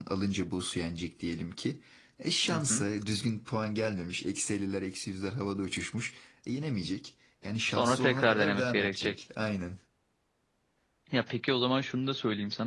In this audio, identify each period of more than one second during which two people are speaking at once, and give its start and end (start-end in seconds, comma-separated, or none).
7.7-9.2